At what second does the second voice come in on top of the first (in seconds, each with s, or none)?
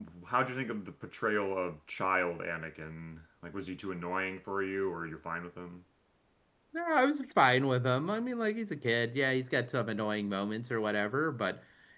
none